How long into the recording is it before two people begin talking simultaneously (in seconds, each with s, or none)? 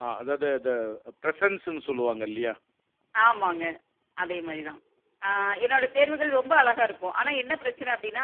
none